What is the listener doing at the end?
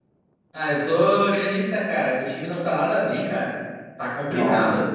taking over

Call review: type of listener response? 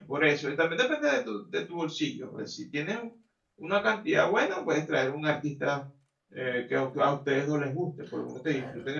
taking over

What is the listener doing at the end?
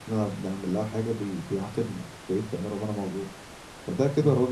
listening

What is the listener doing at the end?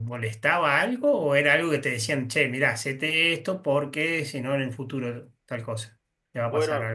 taking over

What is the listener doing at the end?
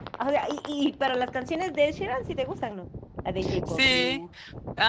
taking over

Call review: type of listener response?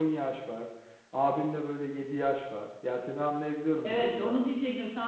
taking over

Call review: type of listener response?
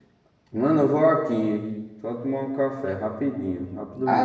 taking over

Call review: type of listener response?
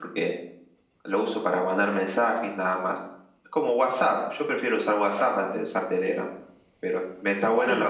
listening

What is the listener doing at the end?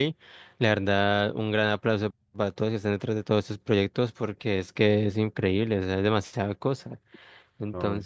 listening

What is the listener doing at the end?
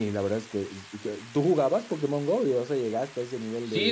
taking over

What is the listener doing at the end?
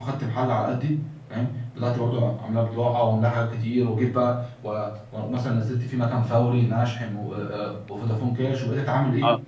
taking over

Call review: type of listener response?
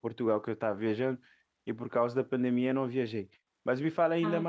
listening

